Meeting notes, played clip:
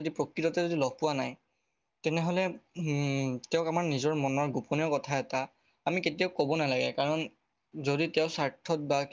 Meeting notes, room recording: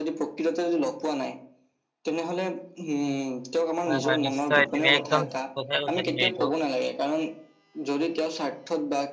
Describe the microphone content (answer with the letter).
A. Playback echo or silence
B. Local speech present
B